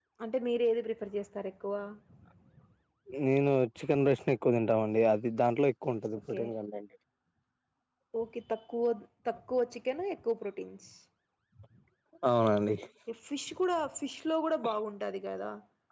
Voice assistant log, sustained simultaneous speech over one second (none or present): none